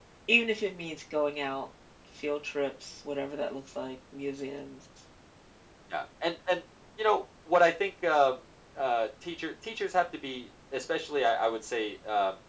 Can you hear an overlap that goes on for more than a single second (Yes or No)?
No